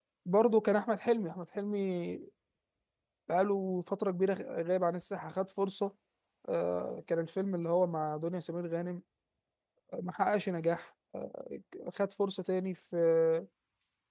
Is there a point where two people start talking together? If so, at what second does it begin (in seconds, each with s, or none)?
none